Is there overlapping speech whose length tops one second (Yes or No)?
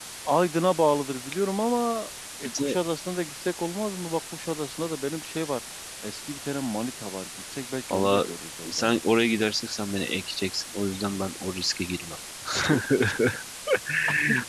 No